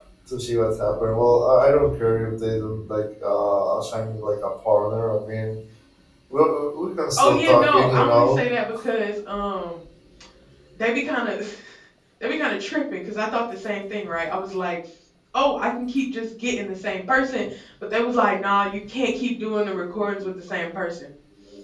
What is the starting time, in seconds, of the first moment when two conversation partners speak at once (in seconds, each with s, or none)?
7.2 s